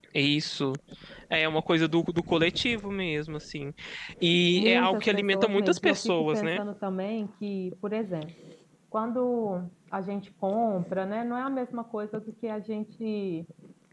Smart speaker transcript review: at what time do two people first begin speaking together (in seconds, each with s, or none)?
4.6 s